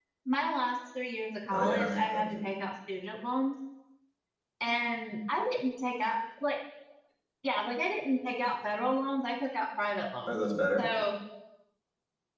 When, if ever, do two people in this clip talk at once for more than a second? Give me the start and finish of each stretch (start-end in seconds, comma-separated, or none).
1.5-2.7